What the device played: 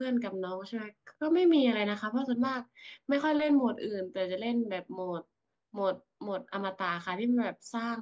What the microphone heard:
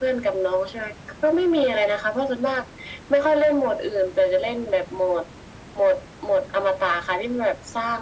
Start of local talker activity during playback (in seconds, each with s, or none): none